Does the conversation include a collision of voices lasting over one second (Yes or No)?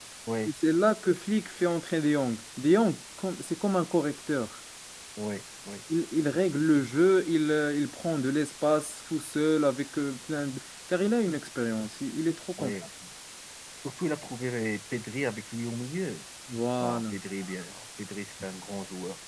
No